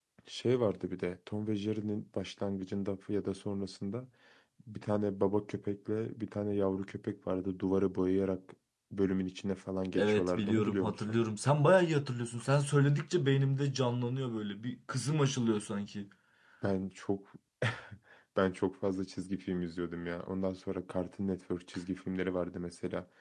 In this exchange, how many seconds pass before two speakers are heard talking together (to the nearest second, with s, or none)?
10 s